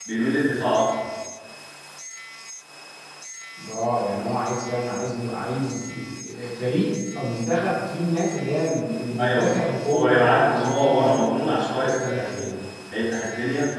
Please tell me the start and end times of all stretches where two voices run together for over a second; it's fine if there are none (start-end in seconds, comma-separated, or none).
9.2-12.5